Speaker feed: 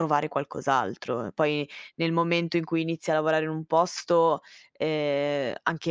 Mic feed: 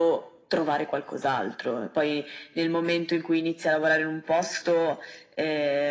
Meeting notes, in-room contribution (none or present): none